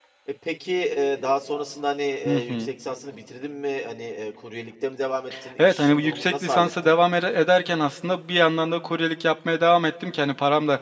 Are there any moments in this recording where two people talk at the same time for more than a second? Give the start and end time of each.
5.6-6.9

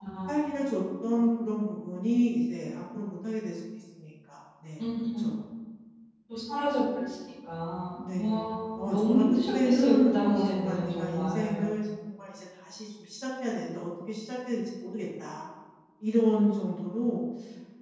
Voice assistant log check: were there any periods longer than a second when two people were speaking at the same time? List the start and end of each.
8.0-11.6

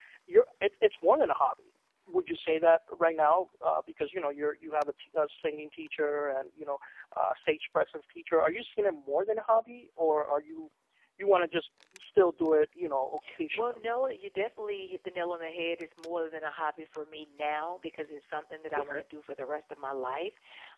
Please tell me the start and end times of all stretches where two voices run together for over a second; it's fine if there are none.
none

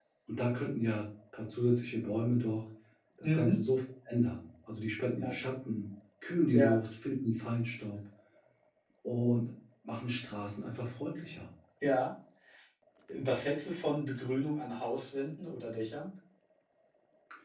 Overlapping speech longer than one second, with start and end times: none

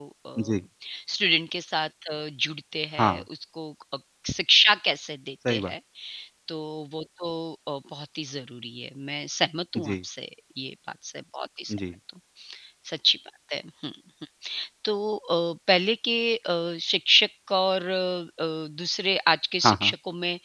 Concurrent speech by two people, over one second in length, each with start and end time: none

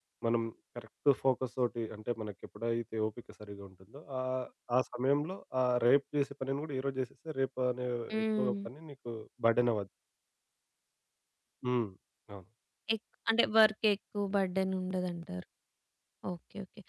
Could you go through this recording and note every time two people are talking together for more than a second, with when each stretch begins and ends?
none

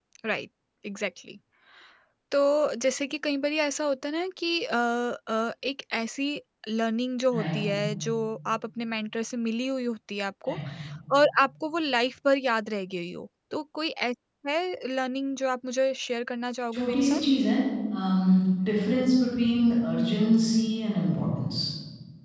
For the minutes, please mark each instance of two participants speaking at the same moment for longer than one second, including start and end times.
none

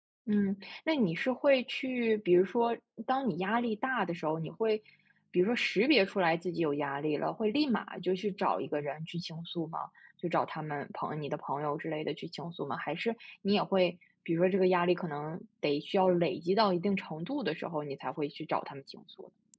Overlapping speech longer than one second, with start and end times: none

